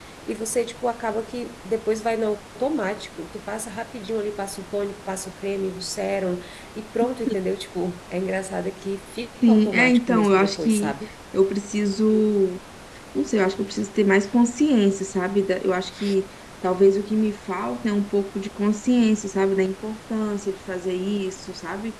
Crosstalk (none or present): present